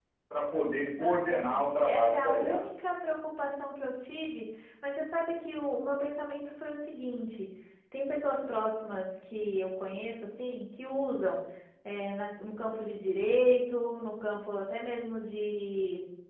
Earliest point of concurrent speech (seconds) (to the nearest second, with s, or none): 1 s